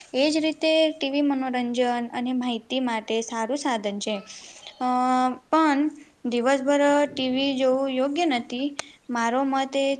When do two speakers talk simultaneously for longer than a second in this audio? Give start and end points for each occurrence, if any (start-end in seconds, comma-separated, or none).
none